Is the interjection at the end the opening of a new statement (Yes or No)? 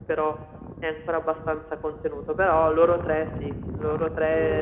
No